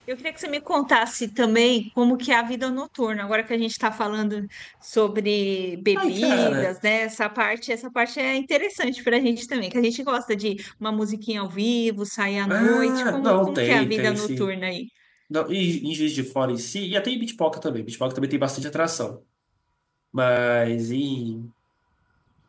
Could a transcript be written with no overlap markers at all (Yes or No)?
No